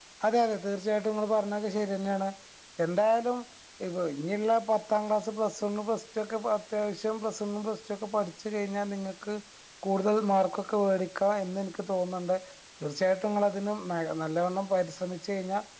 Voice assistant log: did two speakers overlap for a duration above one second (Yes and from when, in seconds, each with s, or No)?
No